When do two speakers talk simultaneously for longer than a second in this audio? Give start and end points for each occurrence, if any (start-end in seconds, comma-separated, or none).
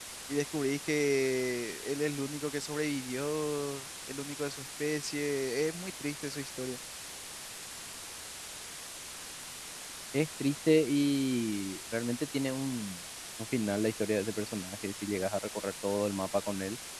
none